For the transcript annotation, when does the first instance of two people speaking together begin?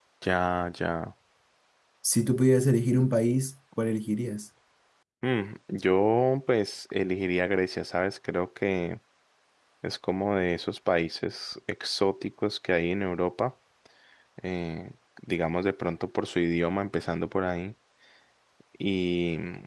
none

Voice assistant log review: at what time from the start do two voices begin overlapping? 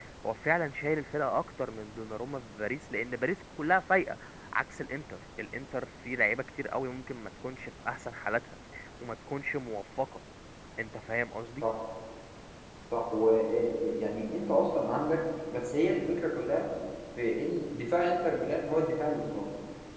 none

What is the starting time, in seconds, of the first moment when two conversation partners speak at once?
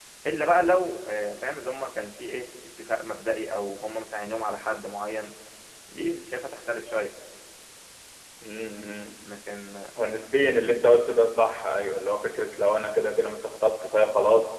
none

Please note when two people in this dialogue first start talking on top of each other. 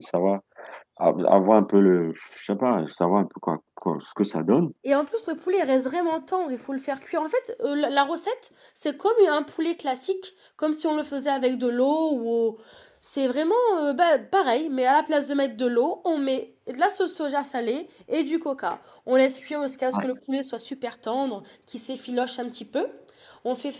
none

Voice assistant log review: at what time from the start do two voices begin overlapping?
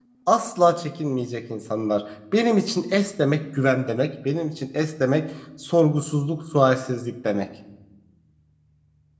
none

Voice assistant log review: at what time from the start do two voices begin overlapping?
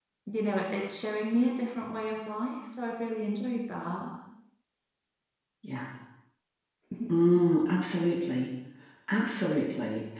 none

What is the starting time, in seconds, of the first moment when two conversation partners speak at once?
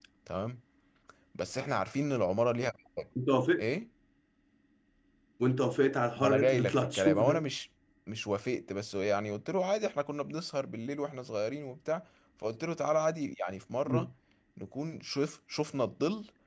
6.2 s

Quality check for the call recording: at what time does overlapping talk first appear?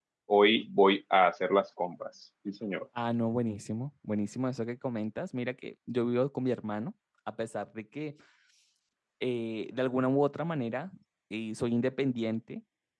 none

